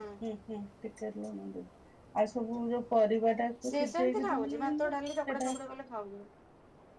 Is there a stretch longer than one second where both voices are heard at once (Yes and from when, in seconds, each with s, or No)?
Yes, from 3.6 s